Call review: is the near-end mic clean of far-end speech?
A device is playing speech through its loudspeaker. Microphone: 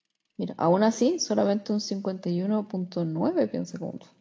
Yes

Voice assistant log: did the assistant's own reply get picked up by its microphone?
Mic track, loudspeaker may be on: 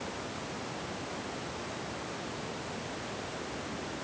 No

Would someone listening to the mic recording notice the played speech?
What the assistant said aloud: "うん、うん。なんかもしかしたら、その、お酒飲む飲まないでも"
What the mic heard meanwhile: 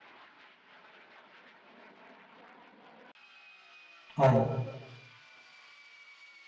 No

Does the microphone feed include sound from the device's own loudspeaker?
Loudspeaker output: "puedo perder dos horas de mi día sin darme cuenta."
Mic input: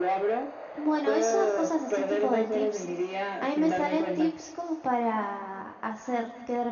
Yes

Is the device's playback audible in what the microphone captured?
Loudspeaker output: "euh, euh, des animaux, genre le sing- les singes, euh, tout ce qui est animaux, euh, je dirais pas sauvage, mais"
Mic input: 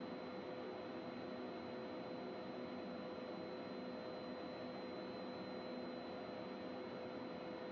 No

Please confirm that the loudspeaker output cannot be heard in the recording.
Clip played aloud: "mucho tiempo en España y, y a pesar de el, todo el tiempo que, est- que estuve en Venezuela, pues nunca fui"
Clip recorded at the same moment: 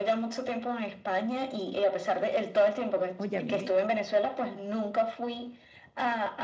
No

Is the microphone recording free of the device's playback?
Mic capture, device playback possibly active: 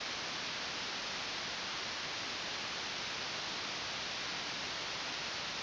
Yes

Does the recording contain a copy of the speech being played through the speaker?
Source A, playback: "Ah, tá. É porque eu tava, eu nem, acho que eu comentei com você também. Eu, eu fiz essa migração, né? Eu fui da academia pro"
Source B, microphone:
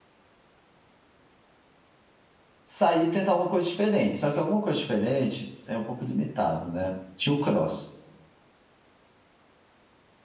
No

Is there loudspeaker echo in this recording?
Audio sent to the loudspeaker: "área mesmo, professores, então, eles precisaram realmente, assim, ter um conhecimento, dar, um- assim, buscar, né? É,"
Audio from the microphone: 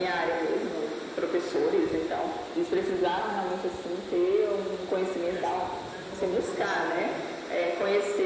Yes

